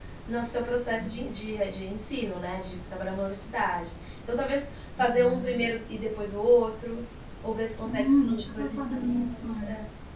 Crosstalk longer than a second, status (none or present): present